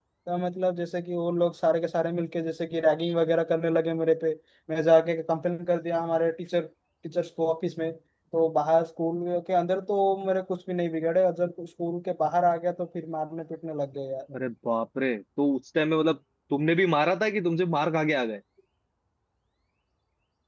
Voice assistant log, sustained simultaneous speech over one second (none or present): none